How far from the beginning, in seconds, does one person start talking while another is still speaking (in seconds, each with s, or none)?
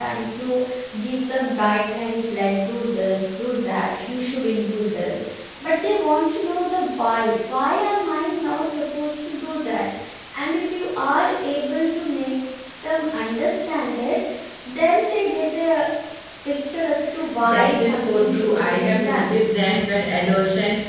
17.4 s